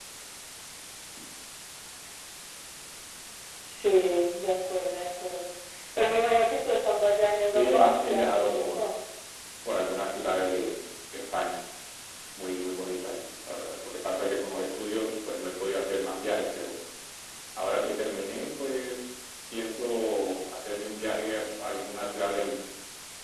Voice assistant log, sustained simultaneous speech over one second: present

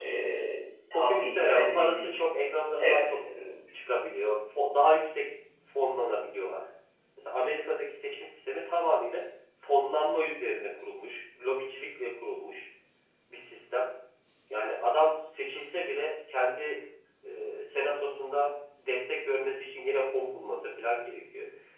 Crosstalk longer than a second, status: present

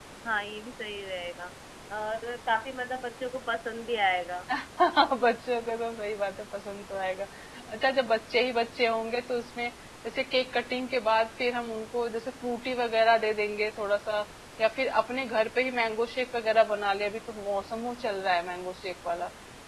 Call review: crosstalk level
none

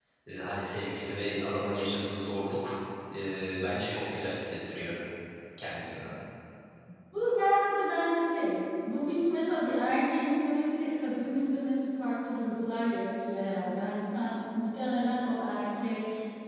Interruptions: none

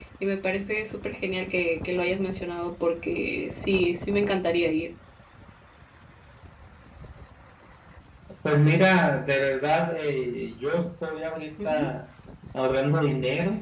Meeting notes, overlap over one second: none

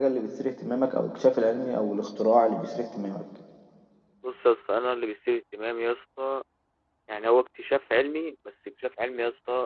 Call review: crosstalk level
none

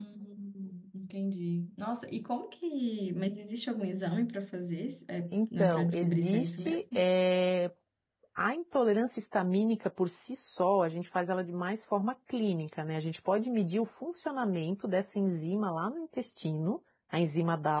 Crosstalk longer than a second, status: present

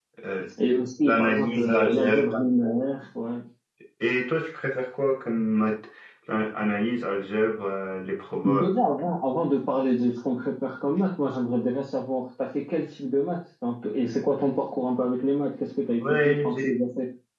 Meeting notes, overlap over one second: present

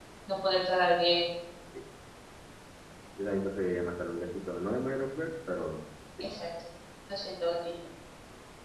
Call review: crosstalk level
none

